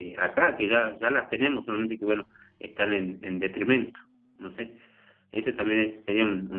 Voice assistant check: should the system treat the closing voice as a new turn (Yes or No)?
No